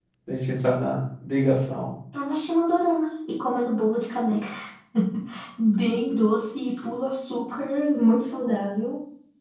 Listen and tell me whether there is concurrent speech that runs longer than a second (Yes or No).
No